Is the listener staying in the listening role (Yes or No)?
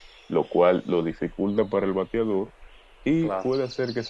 Yes